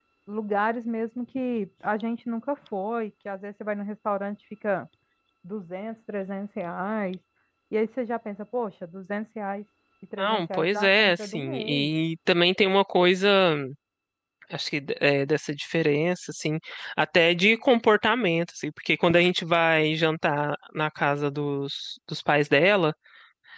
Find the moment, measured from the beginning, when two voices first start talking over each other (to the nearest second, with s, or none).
10 s